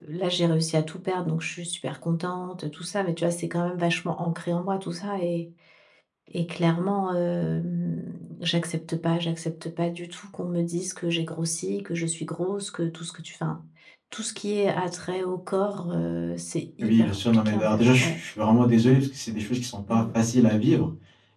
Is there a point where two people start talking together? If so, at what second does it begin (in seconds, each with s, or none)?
16.8 s